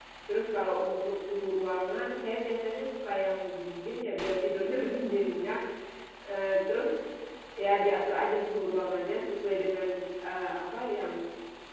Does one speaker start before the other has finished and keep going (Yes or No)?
No